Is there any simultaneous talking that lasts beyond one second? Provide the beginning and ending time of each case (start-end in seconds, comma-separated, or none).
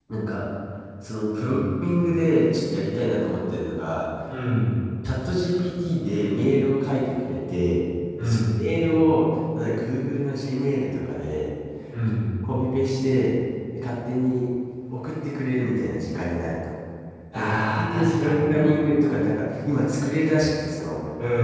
17.3-18.7